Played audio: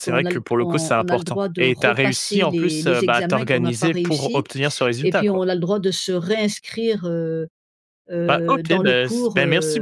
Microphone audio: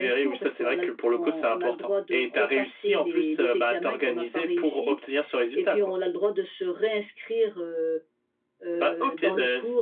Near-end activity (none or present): none